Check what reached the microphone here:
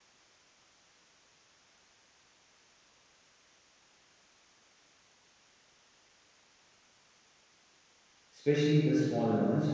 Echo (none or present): none